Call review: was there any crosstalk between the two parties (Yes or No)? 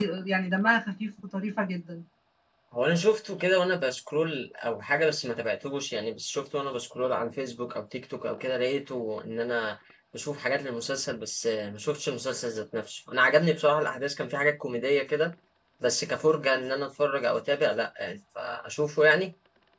No